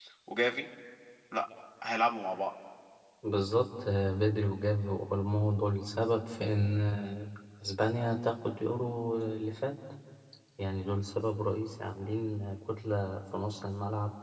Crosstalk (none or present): none